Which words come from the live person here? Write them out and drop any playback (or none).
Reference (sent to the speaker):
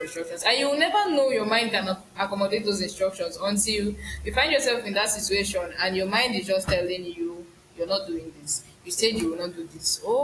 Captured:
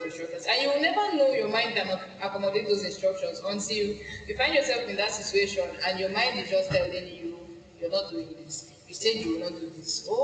none